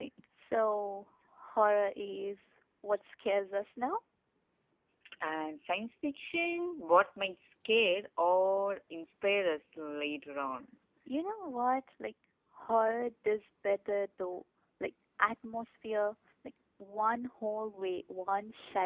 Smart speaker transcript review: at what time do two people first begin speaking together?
none

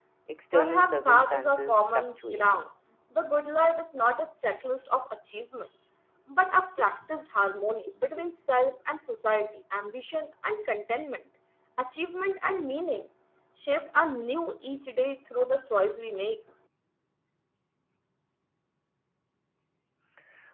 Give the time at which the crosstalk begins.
0.5 s

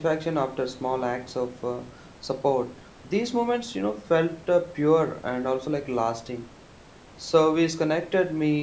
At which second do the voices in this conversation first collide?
none

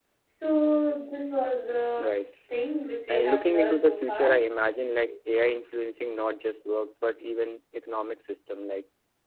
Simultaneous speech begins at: 3.1 s

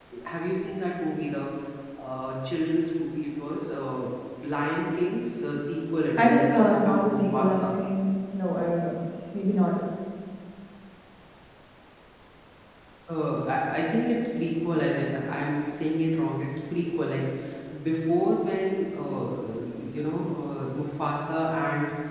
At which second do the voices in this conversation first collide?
6.2 s

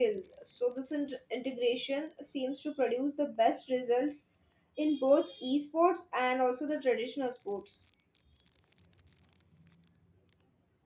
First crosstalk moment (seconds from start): none

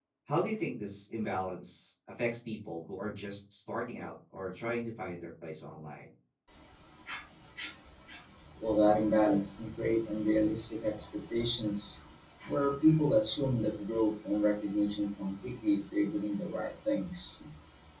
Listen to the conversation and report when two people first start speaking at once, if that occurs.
none

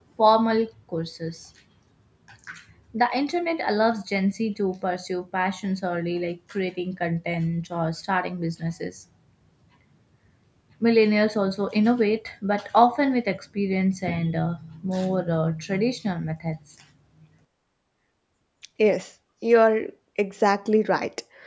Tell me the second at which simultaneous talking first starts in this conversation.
none

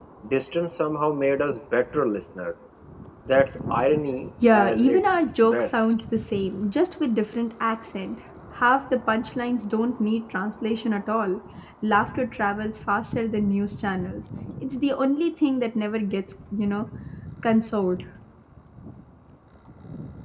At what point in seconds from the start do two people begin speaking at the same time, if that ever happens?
4.4 s

